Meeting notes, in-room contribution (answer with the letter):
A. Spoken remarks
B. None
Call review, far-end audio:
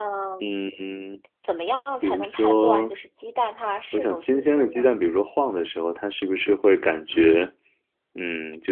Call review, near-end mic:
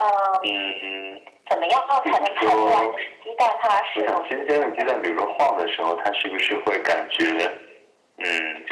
B